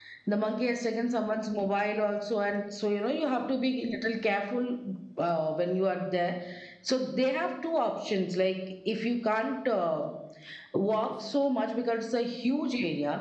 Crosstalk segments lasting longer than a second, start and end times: none

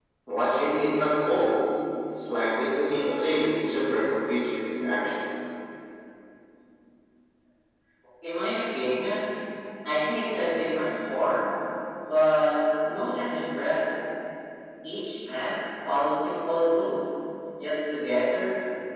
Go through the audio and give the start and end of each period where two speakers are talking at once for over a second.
none

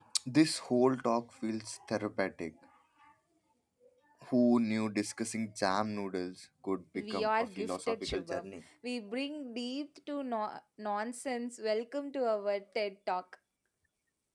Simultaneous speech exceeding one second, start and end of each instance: 7.0-8.5

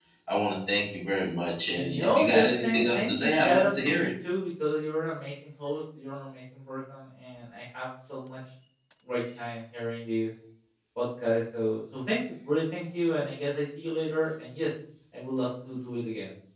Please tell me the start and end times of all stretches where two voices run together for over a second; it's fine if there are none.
1.7-4.1

